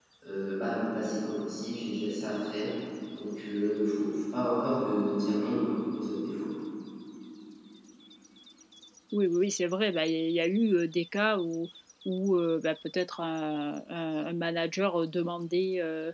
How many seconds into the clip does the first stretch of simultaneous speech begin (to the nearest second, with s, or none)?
none